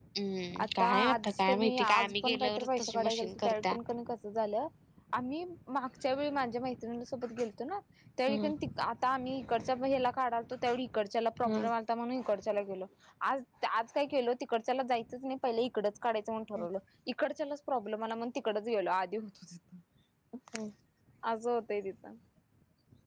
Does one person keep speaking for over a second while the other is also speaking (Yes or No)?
Yes